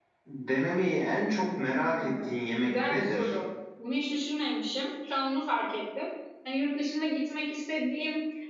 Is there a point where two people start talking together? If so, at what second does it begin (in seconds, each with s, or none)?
1.7 s